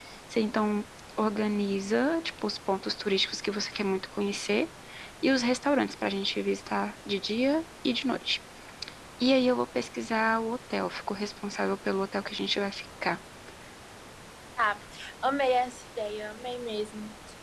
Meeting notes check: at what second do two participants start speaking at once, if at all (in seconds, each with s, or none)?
none